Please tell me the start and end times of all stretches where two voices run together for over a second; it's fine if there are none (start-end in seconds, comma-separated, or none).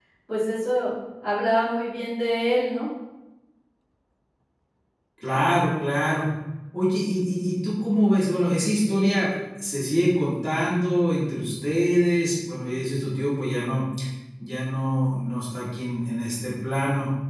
none